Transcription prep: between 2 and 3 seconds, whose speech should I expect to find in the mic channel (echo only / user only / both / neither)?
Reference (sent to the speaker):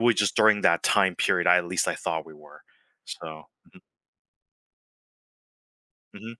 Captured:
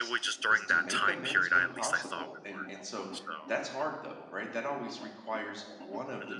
both